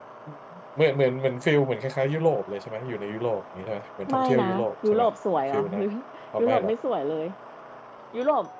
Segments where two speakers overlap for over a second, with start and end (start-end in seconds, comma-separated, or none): none